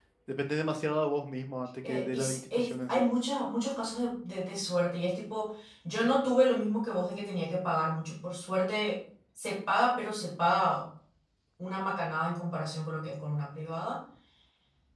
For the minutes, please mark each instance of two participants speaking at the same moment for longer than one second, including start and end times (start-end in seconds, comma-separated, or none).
1.8-3.1